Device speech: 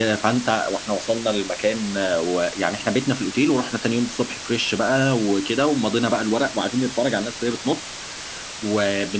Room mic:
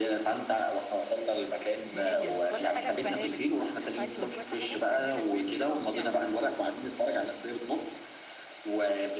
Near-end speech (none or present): present